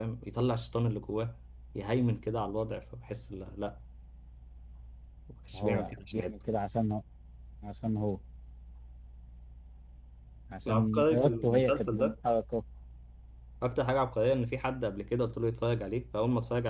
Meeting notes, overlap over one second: present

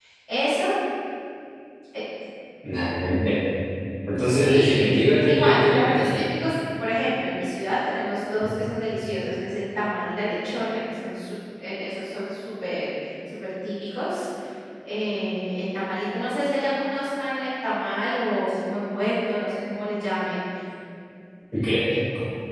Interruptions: present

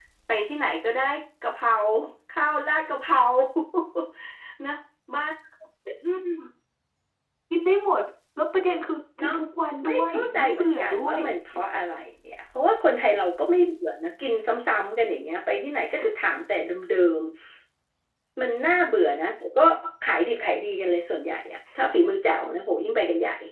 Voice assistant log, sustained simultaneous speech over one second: present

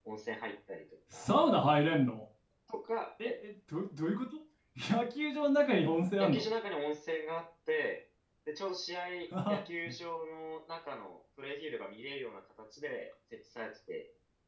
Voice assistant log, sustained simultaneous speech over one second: none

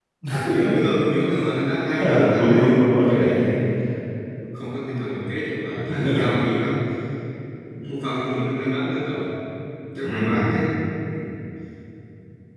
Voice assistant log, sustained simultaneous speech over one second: present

